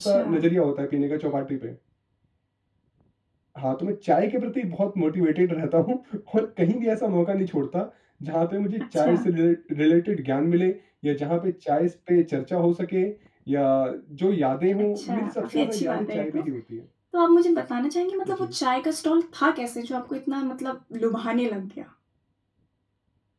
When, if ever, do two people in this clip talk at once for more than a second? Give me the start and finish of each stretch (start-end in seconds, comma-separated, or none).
15.0-16.4